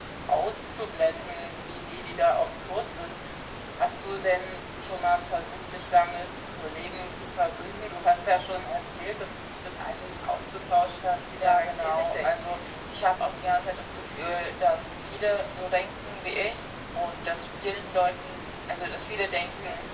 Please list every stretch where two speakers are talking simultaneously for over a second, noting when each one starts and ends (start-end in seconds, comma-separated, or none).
11.4-12.7